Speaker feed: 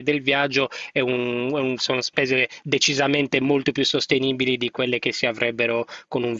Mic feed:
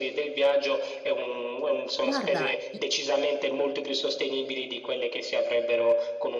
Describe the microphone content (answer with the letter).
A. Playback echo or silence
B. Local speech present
B